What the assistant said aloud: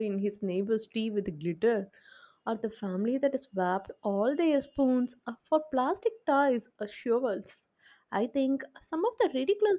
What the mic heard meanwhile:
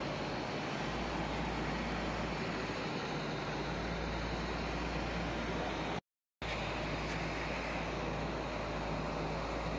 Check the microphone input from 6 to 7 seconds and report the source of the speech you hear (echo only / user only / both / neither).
neither